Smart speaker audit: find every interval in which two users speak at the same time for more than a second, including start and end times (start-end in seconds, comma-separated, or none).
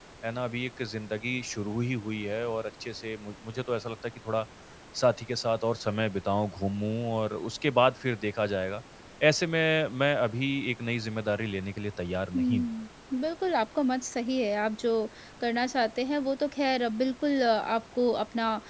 none